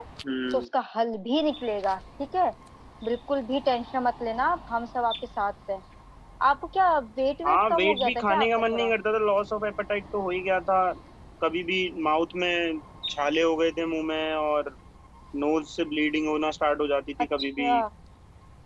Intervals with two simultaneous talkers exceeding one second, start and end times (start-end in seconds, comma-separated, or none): 7.5-8.9